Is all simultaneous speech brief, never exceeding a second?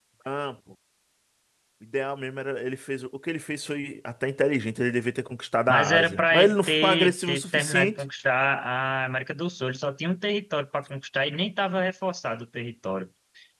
No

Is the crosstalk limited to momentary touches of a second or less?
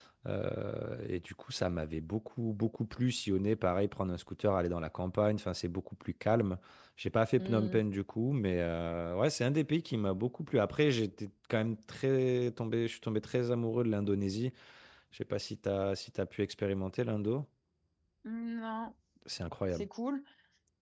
Yes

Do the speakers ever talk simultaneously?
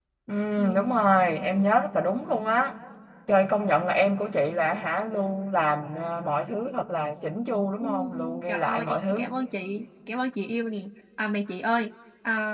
Yes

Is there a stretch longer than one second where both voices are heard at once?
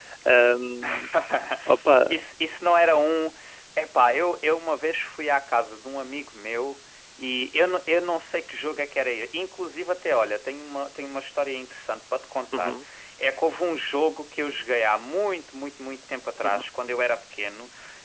No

